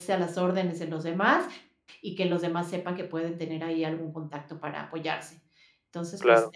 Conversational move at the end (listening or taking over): listening